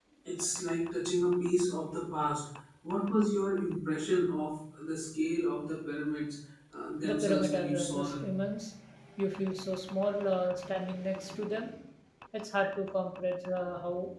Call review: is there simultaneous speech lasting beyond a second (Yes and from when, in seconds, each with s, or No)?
Yes, from 7.0 s